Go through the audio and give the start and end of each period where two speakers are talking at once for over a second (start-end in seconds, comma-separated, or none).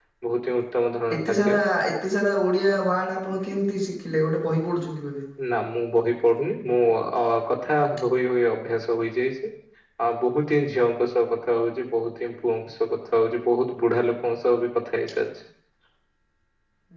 none